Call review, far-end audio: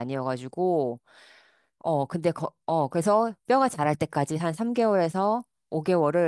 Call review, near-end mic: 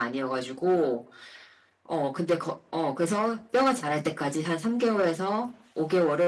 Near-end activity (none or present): none